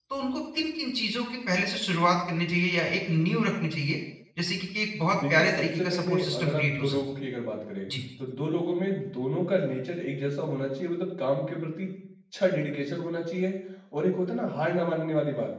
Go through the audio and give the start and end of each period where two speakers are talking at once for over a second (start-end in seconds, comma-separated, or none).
5.3-7.0